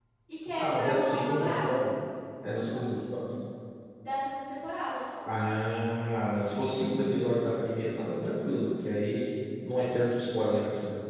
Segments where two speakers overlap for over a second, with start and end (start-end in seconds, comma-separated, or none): 0.6-1.8